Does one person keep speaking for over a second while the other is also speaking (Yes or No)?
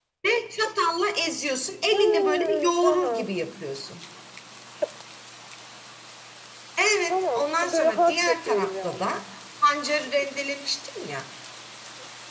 Yes